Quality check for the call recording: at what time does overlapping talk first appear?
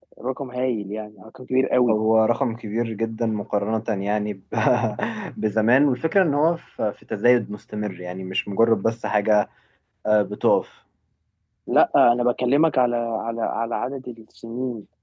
none

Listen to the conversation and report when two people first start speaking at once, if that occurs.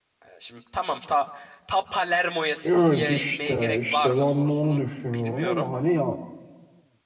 3 s

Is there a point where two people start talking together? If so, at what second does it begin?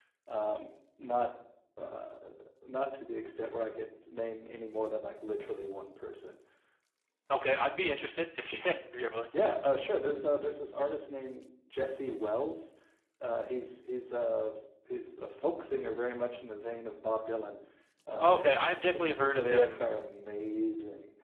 18 s

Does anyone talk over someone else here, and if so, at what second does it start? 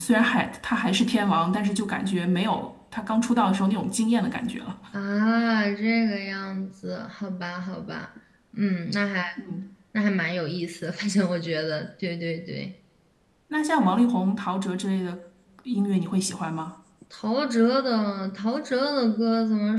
none

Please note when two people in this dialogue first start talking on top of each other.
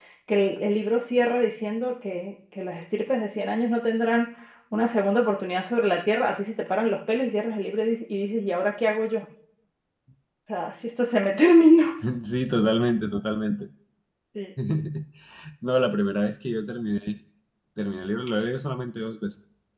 none

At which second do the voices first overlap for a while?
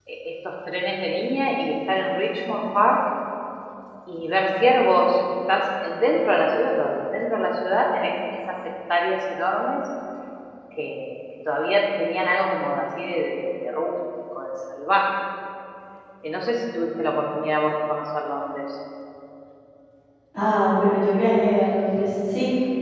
none

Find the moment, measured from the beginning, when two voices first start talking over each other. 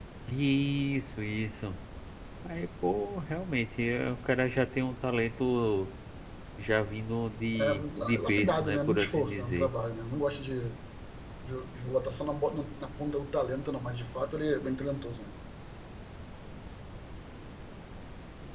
8 s

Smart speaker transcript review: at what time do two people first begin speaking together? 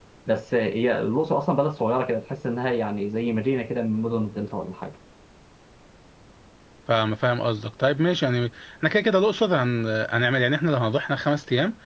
none

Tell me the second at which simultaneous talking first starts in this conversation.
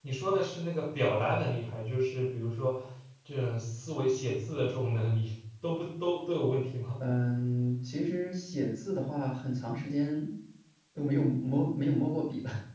none

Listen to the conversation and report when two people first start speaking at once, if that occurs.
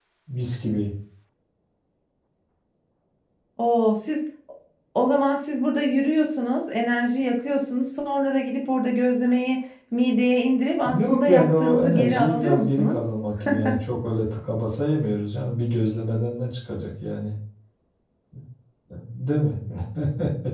11 s

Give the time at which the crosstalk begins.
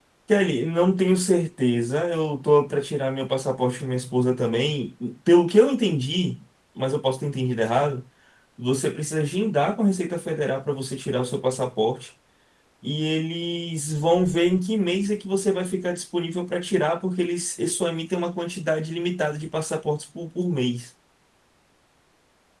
none

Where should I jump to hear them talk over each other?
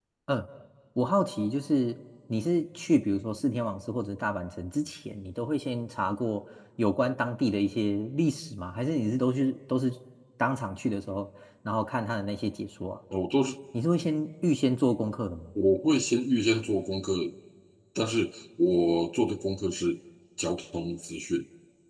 none

